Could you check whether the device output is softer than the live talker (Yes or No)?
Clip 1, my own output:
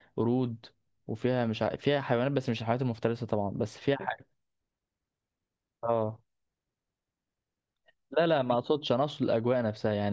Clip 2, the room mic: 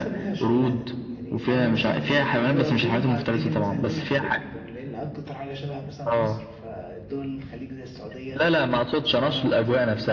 No